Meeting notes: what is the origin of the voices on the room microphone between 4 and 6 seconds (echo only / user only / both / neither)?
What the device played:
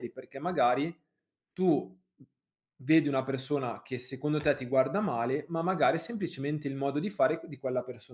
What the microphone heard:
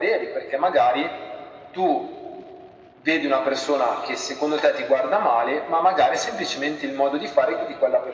echo only